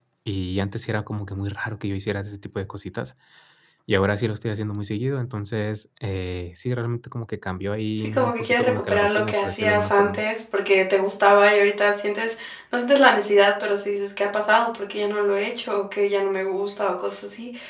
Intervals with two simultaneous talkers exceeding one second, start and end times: 8.0-10.2

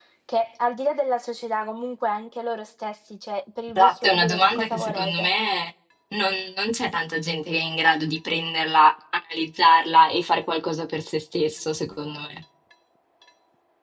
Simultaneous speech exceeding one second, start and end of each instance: 3.8-5.3

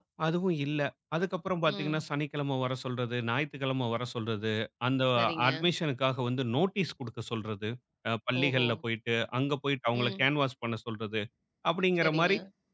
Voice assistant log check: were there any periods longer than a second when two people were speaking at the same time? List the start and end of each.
none

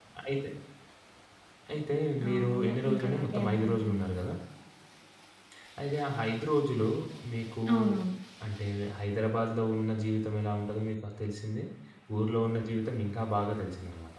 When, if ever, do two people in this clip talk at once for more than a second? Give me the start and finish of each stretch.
2.3-4.1

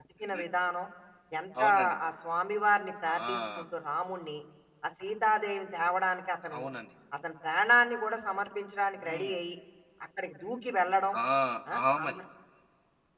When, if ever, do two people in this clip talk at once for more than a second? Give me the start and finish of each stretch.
none

